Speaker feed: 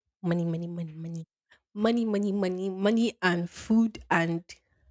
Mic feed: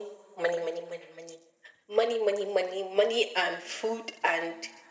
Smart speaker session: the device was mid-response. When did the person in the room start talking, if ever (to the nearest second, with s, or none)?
none